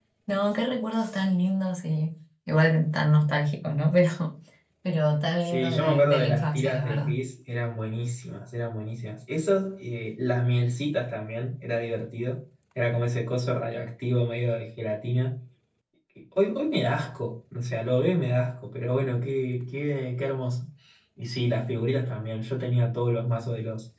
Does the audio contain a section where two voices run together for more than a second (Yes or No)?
Yes